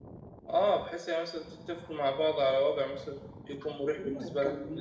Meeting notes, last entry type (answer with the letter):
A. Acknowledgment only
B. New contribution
B